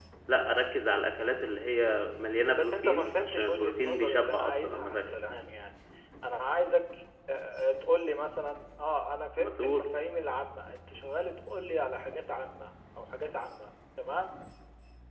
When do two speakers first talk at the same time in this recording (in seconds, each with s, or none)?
2.5 s